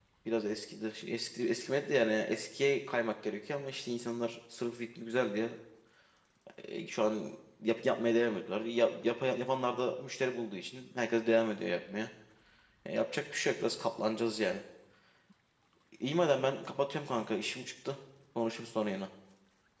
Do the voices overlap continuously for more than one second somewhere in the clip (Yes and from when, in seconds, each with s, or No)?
No